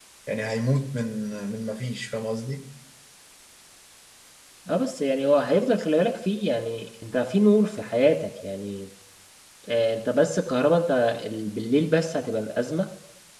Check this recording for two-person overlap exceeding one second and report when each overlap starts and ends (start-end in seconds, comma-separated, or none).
none